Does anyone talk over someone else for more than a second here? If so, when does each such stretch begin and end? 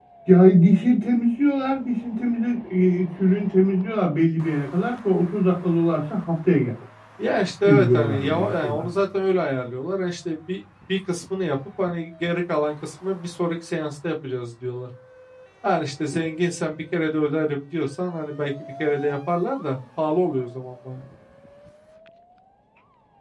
7.7-8.9

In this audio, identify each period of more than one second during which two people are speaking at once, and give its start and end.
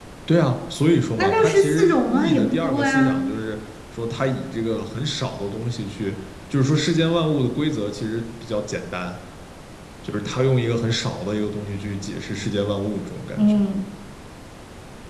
1.2-3.3

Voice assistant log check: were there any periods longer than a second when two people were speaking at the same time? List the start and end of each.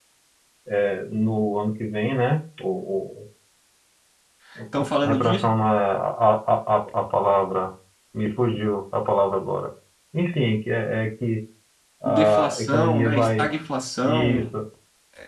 12.1-13.4

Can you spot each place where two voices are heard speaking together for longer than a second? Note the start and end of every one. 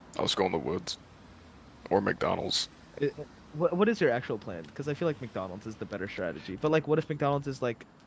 none

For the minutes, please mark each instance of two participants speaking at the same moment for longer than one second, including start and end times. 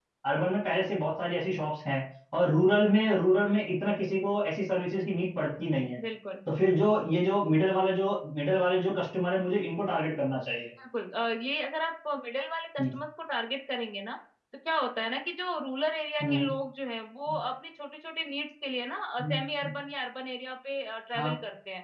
none

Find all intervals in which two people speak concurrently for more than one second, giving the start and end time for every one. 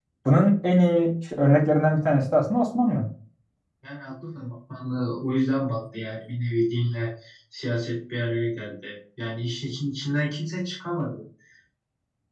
none

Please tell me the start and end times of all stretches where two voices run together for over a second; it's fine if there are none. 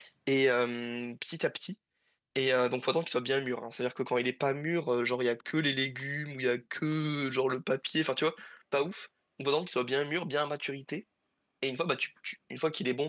none

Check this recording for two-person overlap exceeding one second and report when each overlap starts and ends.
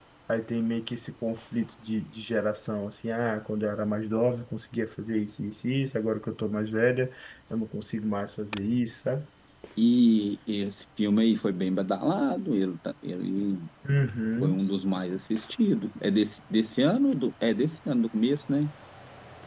none

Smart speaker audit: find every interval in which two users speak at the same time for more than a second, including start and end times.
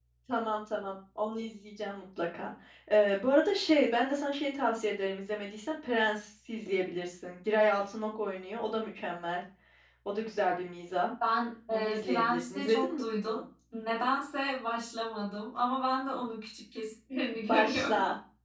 11.7-13.4

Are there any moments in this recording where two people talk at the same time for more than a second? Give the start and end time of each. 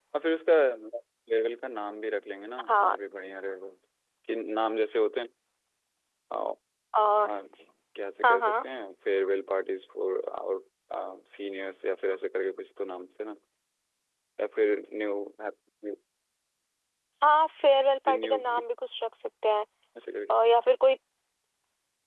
none

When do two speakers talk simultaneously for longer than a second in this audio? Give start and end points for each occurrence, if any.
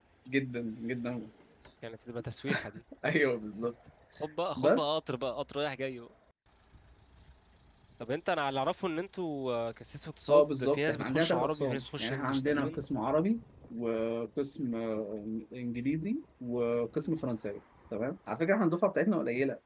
10.3-12.8

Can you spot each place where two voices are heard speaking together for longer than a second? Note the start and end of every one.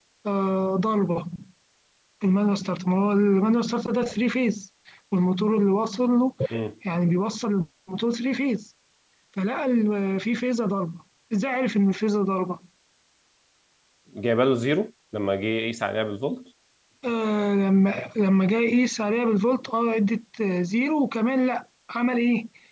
none

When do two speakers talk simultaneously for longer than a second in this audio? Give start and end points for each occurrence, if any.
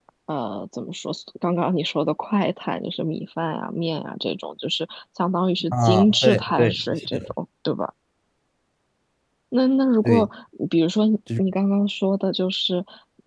5.7-7.3

